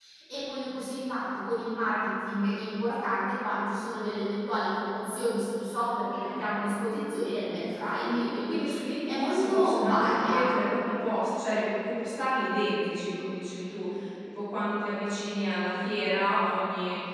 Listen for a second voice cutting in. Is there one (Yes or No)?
Yes